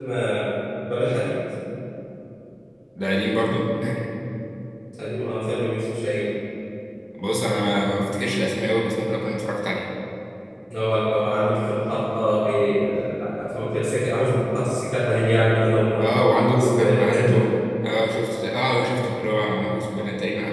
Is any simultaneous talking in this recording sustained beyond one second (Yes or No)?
Yes